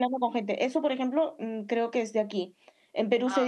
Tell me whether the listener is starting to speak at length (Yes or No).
No